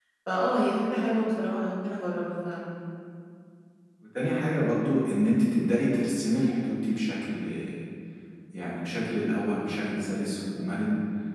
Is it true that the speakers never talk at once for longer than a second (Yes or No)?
Yes